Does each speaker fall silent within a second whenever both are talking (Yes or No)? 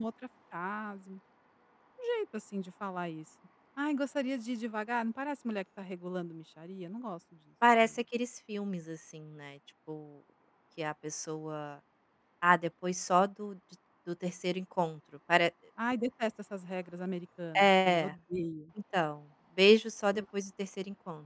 Yes